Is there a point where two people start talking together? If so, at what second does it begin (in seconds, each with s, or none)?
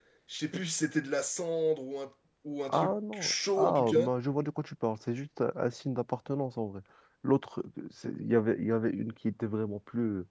2.7 s